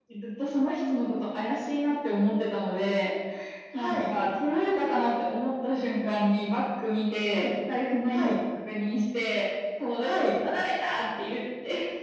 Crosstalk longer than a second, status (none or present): none